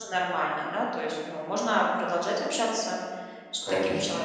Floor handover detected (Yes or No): Yes